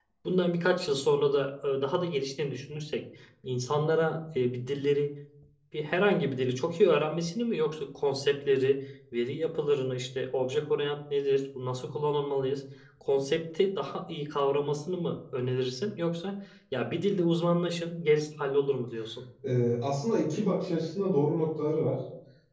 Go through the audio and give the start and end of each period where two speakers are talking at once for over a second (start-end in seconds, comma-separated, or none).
none